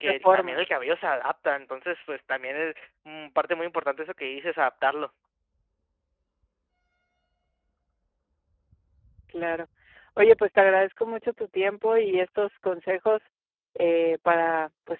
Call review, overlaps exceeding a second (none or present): none